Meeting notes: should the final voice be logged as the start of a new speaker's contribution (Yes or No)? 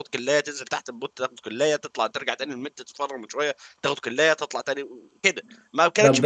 No